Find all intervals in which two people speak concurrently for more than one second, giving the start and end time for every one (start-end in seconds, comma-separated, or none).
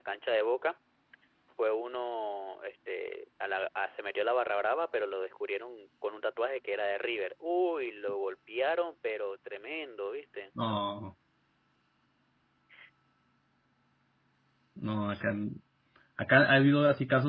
none